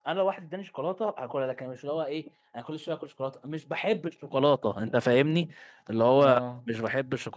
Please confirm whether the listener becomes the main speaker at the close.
No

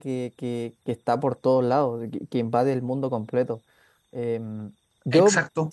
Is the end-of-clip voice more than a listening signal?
Yes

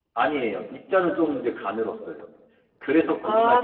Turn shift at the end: Yes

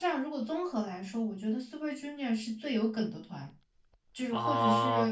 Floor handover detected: Yes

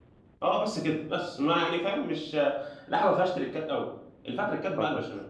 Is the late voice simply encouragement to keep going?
Yes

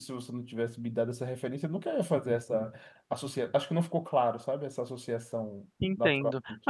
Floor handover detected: Yes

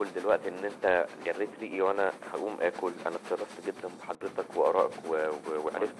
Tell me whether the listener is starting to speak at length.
No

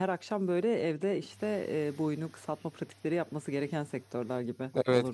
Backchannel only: No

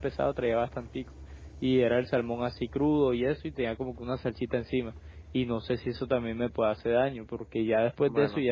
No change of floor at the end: Yes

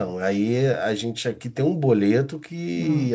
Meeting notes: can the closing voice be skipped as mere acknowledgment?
Yes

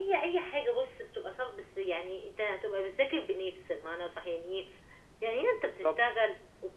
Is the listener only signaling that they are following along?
Yes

